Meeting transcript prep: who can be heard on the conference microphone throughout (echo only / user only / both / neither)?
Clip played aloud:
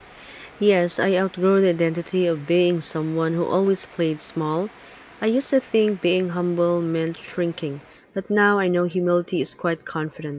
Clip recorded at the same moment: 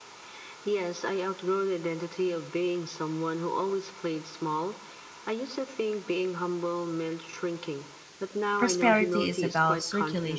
both